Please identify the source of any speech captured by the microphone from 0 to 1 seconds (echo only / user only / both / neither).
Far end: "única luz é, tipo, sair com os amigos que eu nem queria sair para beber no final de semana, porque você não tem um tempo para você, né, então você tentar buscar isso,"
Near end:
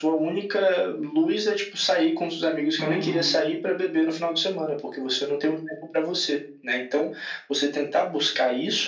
echo only